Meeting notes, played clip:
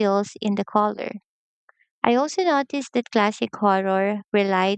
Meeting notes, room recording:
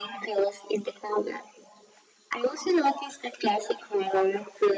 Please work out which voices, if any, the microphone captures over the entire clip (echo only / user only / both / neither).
echo only